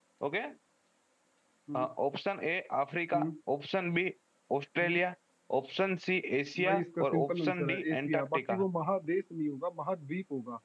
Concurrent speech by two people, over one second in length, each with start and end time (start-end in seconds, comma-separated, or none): 6.6-8.6